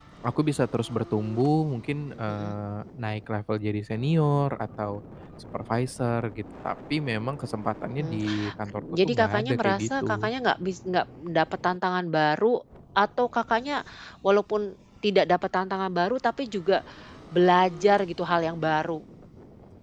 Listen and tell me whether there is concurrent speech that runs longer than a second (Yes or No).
Yes